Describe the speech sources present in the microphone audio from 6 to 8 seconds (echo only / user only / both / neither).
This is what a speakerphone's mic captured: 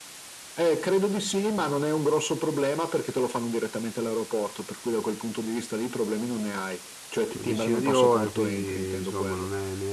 both